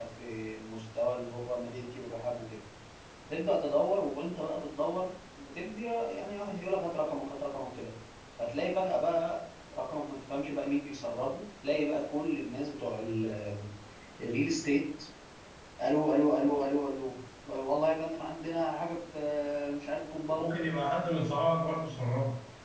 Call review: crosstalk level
none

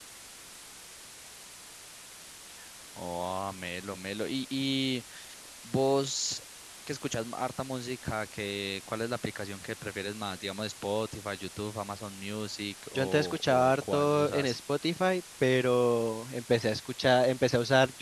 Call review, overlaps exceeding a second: present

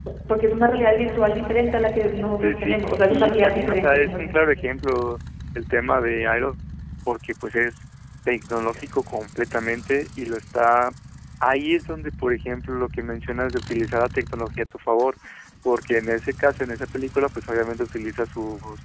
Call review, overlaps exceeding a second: present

